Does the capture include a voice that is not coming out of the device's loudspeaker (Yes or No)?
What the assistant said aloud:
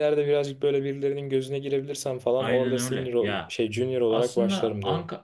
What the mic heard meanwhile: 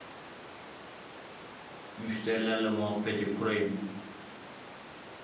Yes